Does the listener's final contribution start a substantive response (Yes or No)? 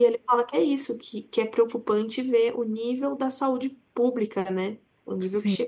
No